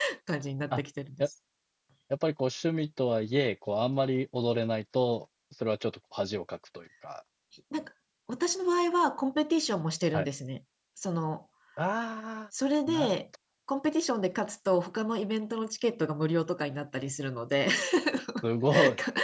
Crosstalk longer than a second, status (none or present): none